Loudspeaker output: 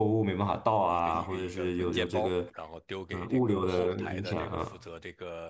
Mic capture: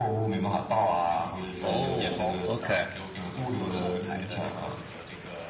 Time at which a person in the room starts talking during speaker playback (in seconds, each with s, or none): 1.6 s